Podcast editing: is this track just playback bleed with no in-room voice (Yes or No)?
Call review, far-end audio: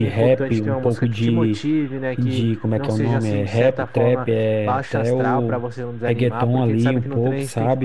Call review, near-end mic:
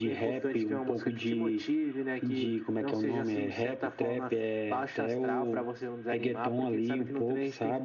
Yes